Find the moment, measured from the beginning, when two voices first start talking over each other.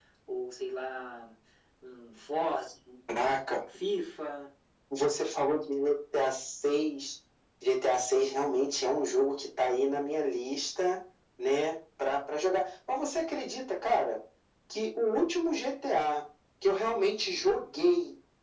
none

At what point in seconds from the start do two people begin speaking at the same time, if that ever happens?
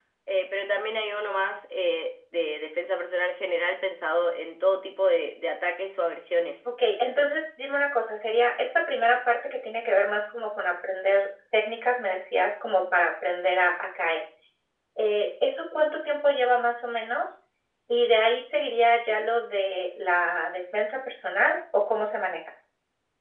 none

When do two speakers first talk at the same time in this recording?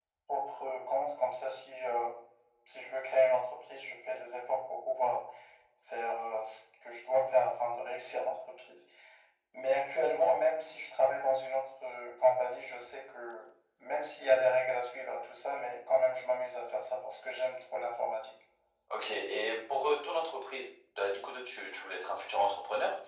none

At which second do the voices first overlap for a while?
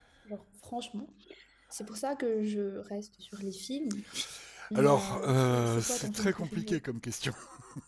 4.8 s

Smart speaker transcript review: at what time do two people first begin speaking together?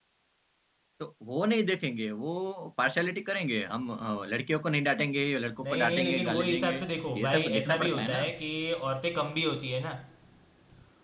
5.6 s

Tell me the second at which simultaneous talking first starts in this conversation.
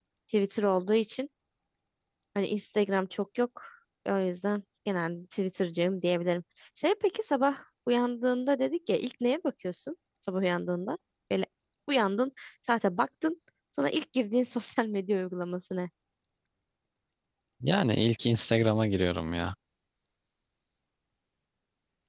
none

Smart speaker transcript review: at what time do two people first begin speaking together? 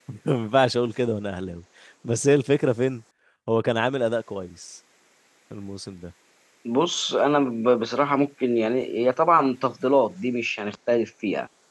none

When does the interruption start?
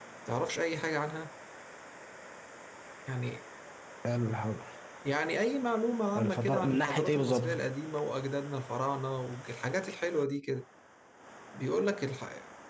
6.2 s

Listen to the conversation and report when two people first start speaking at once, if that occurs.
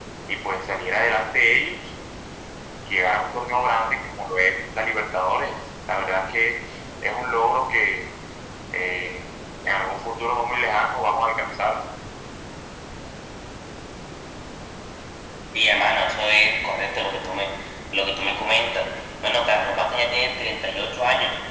none

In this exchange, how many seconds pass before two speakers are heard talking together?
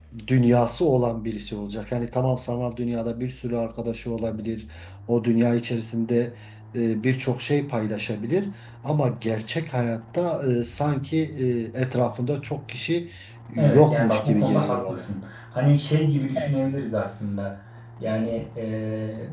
13.6 s

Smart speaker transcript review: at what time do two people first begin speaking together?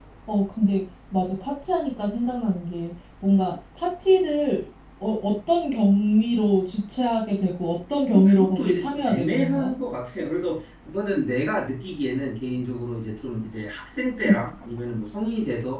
8.1 s

